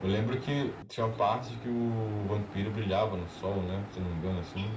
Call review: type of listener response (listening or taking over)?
taking over